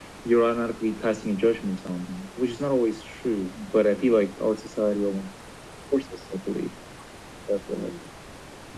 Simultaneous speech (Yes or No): No